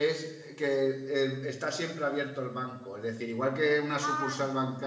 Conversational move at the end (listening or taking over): listening